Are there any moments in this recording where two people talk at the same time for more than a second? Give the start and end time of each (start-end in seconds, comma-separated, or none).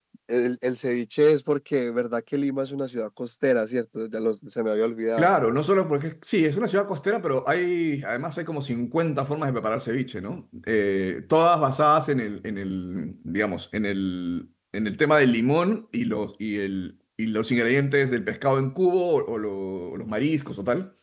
none